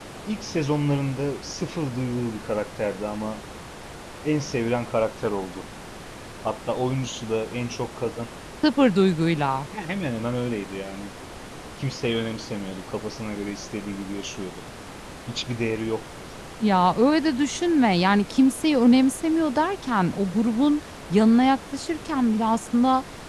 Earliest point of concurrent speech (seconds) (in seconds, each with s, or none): none